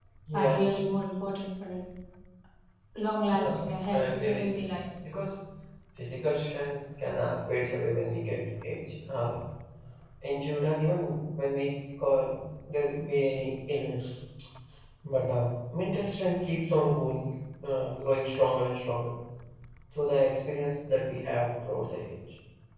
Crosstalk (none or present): present